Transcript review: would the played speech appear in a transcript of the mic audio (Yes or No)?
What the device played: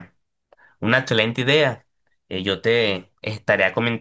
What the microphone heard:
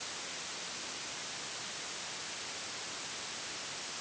No